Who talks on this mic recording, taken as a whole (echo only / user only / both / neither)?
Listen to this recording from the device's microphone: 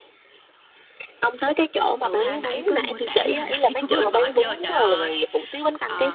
both